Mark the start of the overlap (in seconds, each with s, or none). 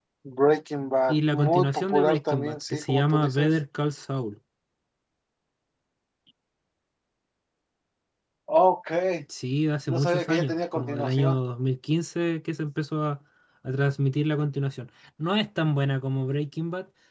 1.1 s